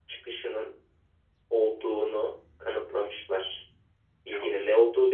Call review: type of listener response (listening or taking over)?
listening